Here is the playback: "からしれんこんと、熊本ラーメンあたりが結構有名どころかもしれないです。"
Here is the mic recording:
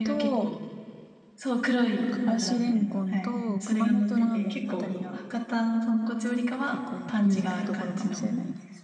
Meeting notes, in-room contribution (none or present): present